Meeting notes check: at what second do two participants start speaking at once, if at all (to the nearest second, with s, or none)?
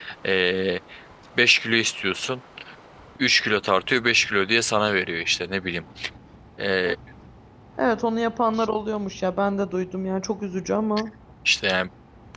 none